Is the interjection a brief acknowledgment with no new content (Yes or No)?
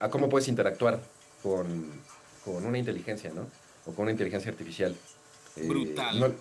No